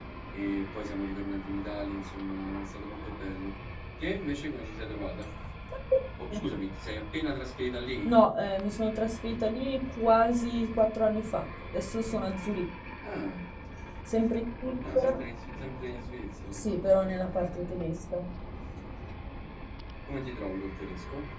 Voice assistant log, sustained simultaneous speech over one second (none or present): none